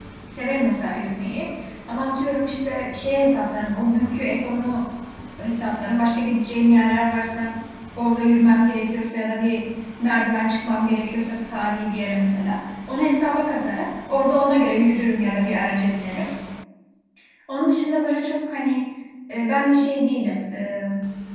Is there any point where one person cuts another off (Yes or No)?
No